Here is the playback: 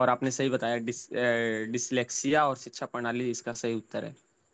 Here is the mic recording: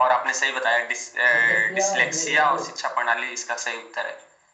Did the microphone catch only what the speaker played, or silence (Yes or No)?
No